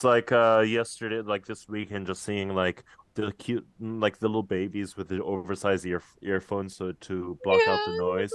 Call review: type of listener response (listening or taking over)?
taking over